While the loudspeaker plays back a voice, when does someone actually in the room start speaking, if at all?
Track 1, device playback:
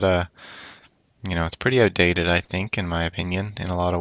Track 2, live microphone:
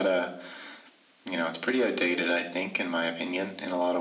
none

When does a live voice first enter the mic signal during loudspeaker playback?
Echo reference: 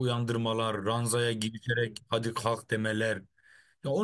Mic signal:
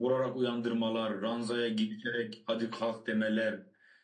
none

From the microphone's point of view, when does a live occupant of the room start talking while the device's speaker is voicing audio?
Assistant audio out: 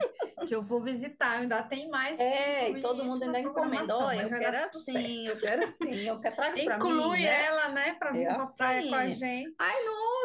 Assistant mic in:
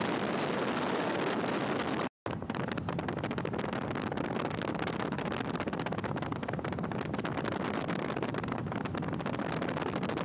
none

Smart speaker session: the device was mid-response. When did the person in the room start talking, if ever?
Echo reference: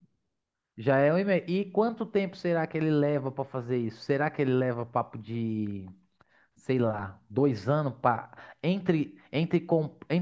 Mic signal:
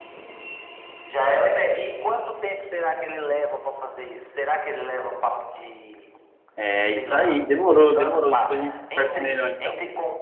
7 s

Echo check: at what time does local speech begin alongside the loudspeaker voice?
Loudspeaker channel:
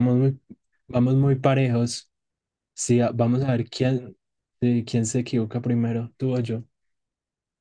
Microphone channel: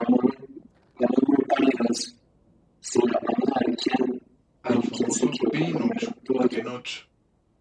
5 s

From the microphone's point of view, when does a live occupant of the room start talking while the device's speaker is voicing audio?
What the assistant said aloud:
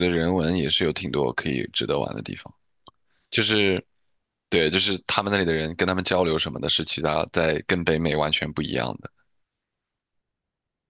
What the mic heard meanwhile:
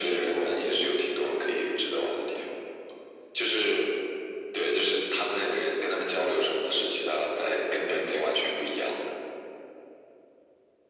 none

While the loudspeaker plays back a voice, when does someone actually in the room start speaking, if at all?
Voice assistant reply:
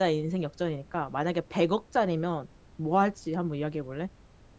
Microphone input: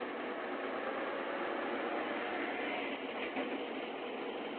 none

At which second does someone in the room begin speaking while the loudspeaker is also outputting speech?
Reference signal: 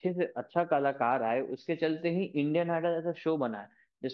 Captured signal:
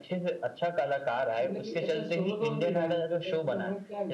1 s

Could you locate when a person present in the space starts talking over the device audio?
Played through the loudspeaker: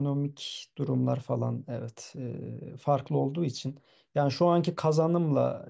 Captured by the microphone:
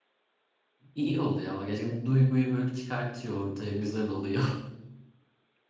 1 s

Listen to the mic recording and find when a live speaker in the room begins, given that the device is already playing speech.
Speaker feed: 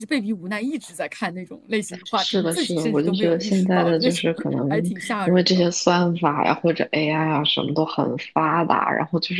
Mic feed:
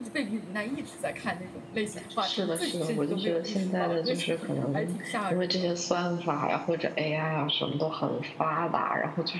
none

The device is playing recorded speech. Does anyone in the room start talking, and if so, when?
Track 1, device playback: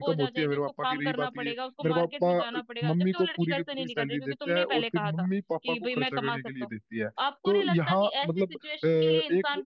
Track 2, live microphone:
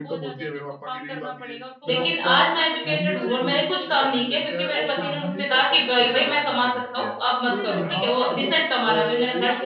2 s

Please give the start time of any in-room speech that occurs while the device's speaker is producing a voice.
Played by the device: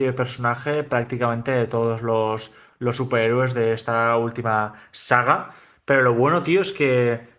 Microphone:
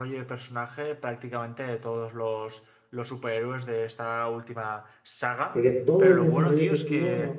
5 s

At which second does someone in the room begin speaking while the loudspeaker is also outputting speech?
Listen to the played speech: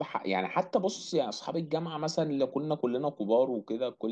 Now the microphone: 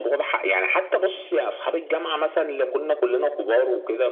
none

